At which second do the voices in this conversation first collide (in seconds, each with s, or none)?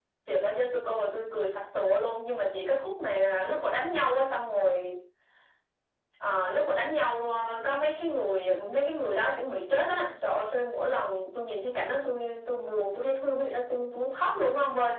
none